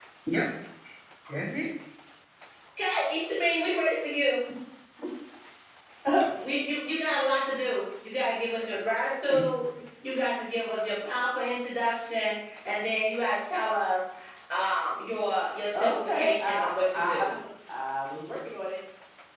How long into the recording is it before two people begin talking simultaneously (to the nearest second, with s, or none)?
16 s